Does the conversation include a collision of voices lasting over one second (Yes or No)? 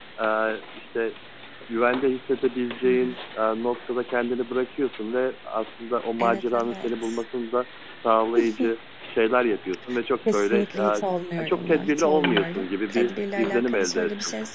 Yes